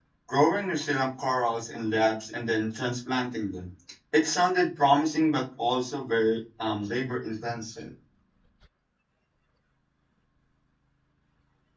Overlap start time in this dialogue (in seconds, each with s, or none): none